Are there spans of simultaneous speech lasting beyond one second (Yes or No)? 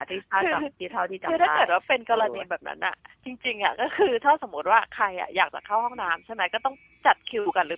No